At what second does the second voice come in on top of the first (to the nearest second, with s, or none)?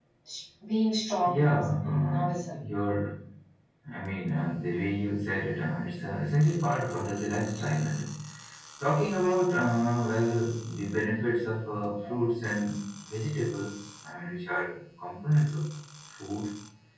1 s